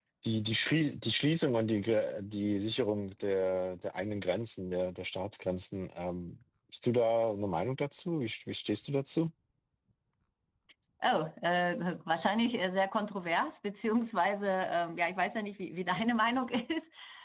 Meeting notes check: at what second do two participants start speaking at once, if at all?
none

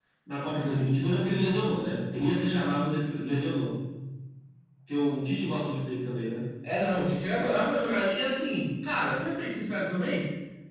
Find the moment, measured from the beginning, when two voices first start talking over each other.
none

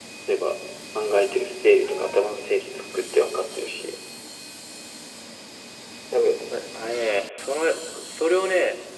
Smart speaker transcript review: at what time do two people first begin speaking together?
none

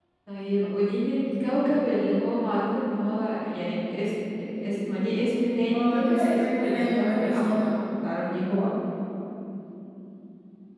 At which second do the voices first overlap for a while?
5.7 s

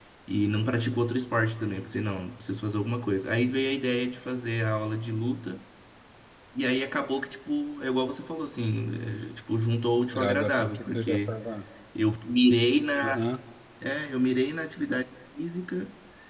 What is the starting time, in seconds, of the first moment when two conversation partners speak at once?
10.1 s

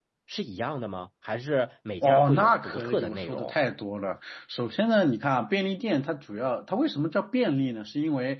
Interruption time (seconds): 2.0 s

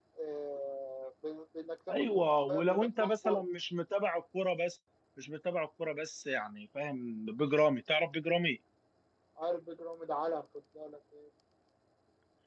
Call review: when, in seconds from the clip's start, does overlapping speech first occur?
1.9 s

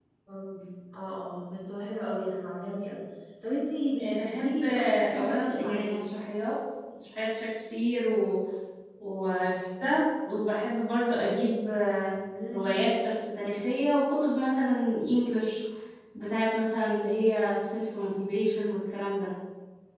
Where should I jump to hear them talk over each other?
4.0 s

